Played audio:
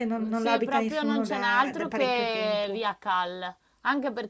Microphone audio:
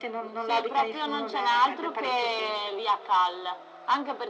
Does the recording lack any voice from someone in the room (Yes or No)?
Yes